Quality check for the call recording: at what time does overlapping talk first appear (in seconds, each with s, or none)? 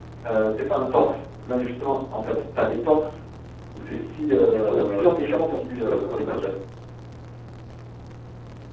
4.6 s